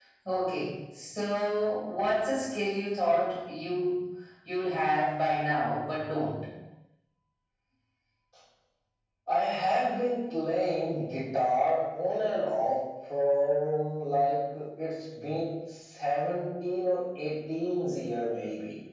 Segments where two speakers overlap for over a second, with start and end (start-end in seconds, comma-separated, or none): none